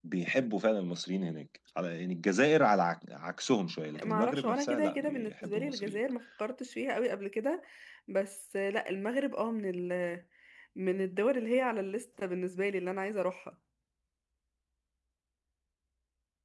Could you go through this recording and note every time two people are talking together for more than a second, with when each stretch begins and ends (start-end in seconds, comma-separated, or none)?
4.0-6.0